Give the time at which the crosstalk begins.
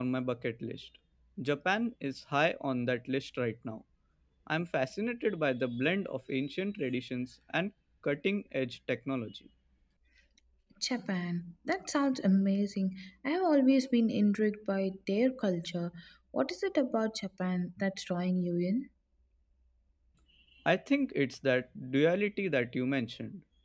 none

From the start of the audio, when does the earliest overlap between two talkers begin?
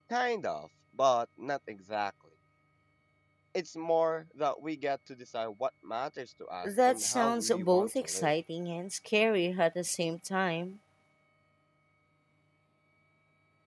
6.6 s

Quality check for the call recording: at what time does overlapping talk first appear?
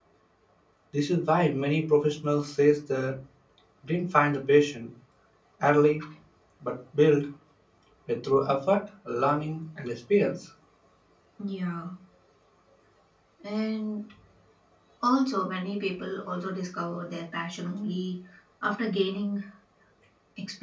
none

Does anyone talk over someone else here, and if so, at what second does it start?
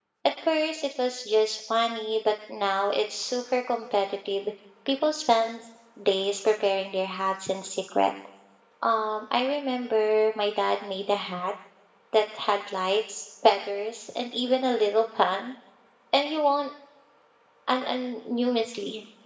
none

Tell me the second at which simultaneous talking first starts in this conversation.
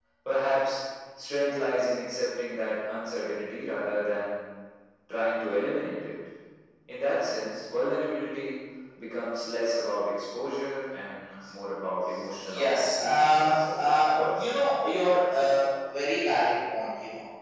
12.4 s

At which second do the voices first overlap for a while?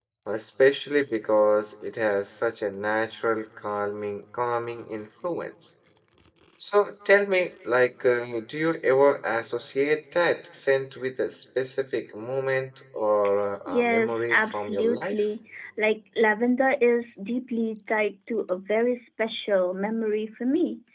13.7 s

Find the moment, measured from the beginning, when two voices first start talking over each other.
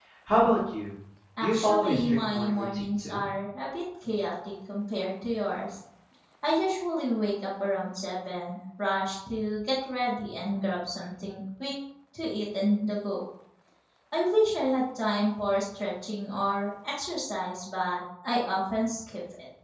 1.4 s

